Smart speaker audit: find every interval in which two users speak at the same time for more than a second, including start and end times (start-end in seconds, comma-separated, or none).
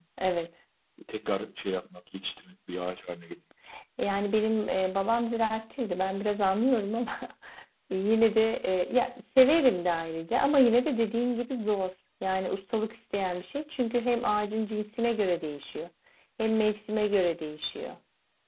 none